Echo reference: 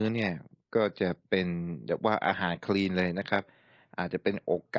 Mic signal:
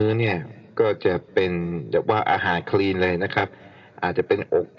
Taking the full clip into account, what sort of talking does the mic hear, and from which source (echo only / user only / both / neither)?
echo only